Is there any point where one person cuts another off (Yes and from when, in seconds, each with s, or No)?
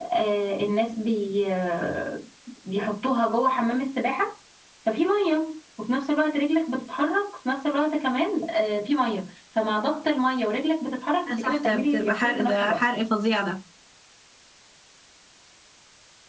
Yes, from 11.3 s